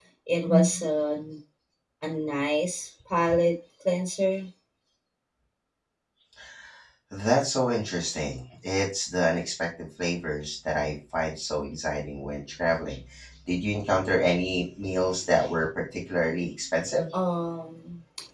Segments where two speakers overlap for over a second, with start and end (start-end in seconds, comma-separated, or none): none